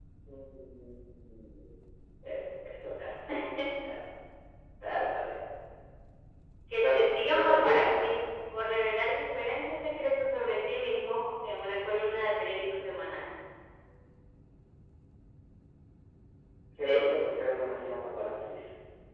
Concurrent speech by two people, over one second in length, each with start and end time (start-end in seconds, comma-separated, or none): 6.8-8.0